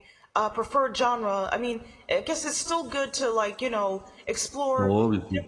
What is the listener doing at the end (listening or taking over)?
listening